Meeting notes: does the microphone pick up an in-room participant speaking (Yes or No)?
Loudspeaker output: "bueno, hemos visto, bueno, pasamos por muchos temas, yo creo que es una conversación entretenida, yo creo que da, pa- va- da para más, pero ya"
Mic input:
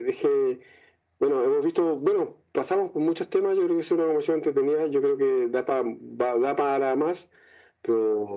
No